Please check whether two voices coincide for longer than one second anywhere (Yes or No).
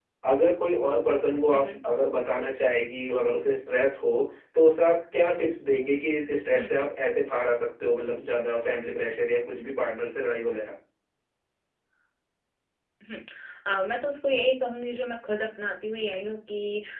No